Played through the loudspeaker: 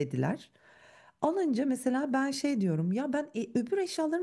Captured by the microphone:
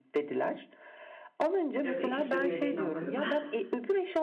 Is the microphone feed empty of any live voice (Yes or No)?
No